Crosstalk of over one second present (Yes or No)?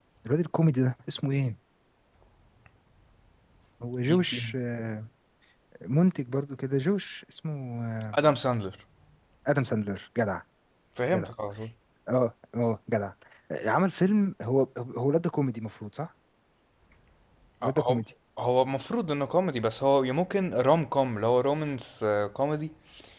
No